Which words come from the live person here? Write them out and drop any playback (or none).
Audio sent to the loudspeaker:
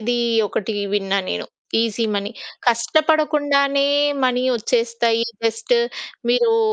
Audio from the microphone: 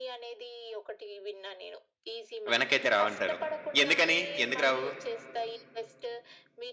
వెనకైతే రావంటారు. ఎందుకని? ఎందుకు రావు?